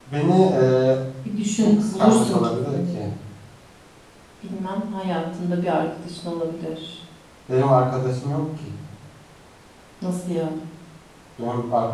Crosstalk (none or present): present